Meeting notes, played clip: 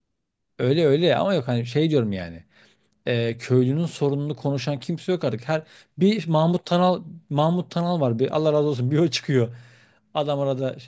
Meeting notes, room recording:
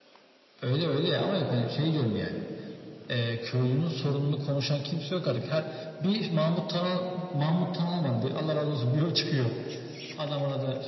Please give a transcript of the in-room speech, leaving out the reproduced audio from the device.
none

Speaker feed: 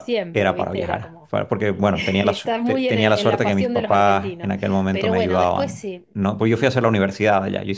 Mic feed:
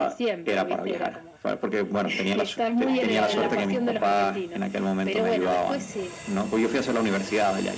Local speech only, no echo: ahí a, mm,

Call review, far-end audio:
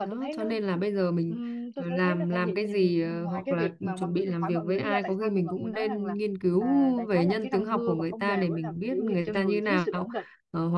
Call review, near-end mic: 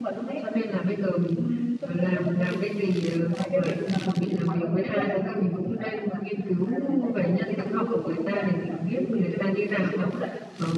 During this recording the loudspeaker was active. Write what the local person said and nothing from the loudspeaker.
none

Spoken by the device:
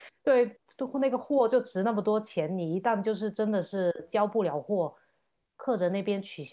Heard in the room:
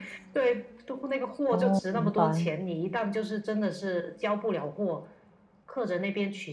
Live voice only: 哦，明白

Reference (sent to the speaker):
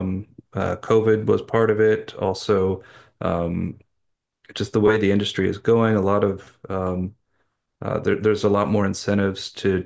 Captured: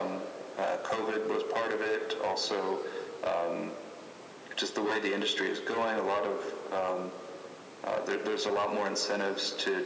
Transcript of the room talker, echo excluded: none

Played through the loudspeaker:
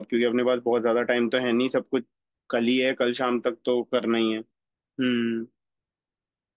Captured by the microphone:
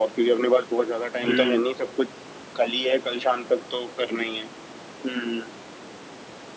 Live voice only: हम्म

